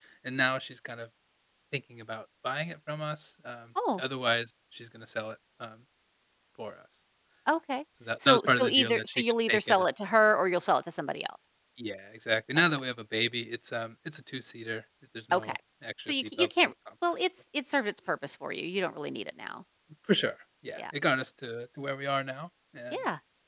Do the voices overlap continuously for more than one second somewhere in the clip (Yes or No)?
Yes